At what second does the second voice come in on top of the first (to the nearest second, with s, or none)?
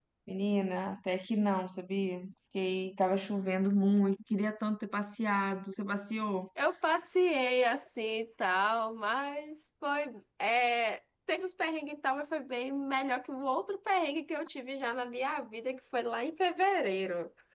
none